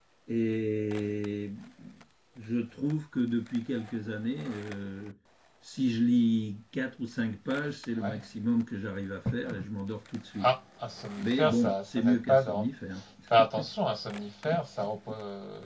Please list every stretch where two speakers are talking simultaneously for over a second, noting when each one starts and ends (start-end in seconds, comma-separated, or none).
11.2-12.7